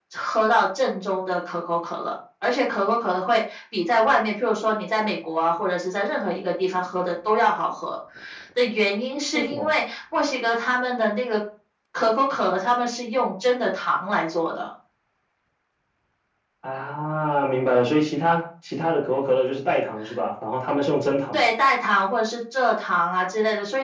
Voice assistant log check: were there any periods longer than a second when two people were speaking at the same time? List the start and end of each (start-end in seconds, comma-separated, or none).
none